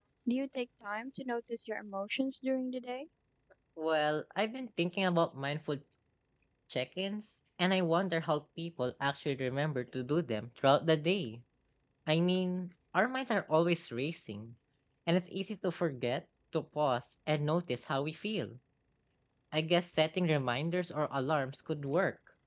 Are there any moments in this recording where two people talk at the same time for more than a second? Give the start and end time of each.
none

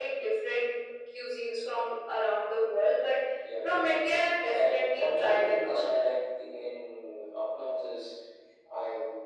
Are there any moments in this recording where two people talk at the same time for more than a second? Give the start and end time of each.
3.6-5.8

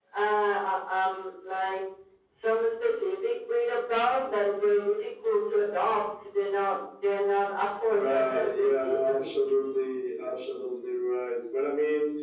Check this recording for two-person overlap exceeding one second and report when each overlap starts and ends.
7.9-9.3

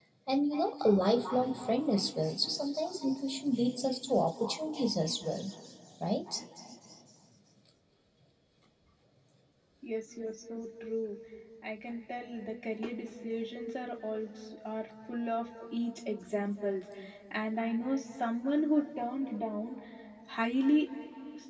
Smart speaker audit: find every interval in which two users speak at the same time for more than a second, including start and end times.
none

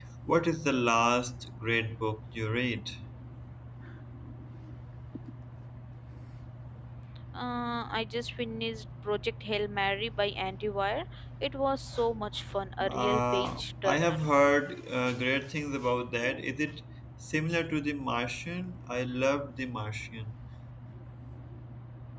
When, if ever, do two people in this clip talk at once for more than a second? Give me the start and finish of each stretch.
12.9-14.2

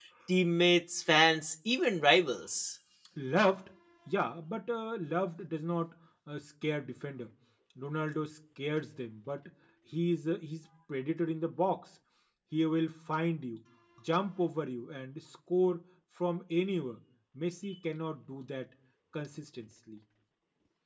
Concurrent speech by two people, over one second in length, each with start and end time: none

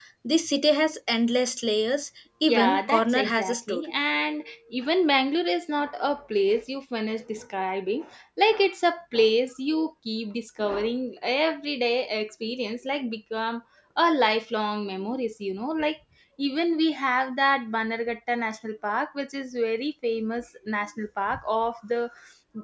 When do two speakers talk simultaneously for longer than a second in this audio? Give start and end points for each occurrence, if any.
2.5-3.9

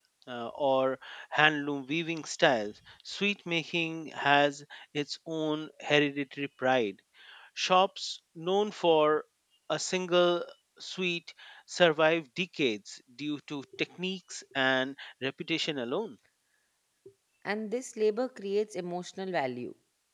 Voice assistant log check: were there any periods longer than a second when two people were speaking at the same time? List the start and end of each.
none

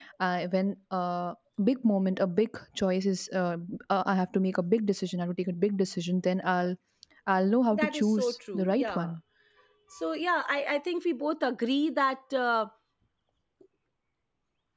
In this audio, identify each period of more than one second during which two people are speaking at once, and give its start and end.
7.7-9.1

